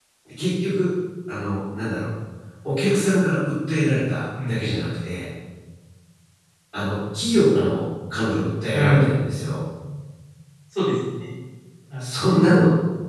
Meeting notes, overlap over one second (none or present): none